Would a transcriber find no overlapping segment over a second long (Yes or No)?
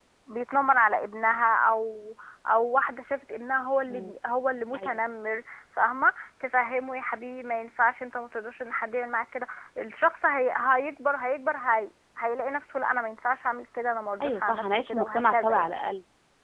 No